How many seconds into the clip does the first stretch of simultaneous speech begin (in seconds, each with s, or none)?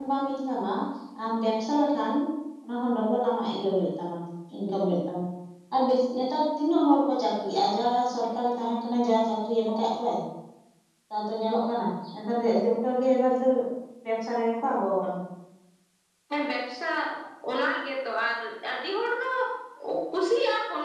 none